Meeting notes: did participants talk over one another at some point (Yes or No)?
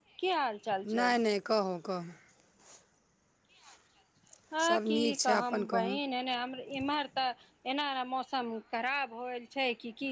Yes